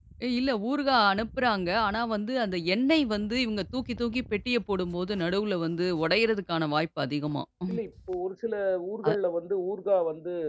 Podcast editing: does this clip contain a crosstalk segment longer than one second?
No

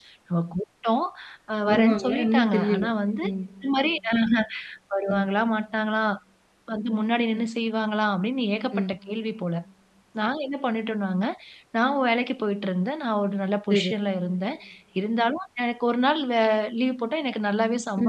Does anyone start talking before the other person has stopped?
Yes, from 1.7 s

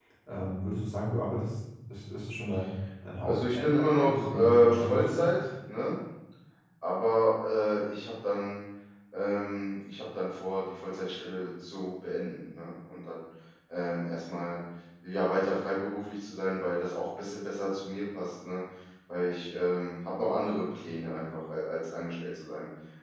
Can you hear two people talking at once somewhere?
Yes, from 3.2 s

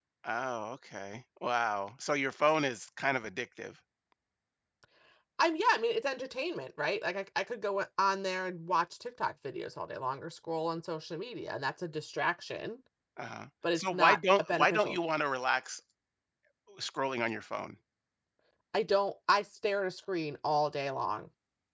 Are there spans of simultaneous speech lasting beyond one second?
Yes, from 13.8 s

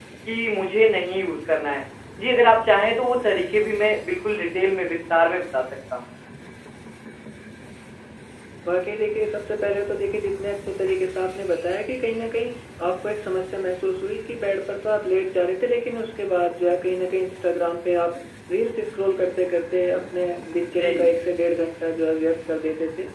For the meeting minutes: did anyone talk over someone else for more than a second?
No

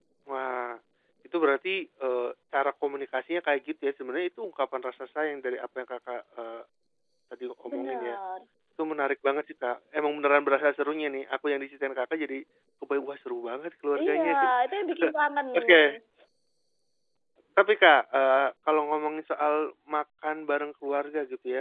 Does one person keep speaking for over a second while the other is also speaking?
No

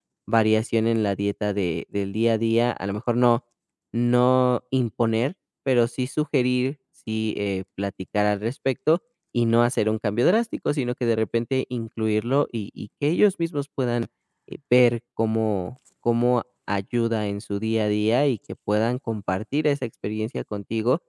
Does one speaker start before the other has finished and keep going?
No

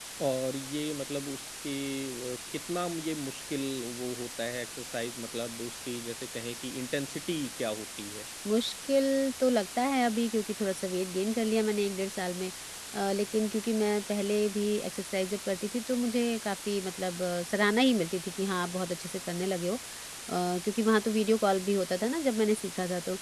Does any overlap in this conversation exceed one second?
No

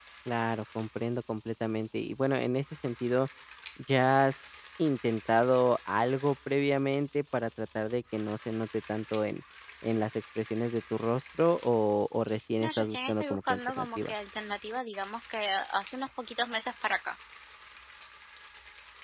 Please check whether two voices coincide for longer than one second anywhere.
Yes, from 12.6 s

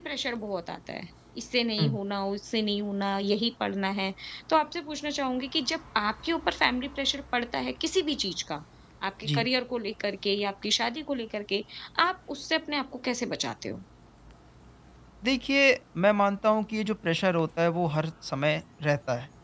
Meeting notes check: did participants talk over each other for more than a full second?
No

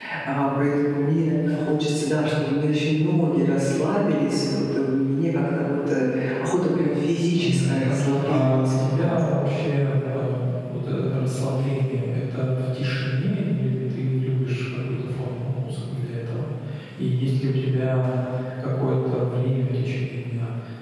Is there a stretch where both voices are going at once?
Yes, from 7.3 s

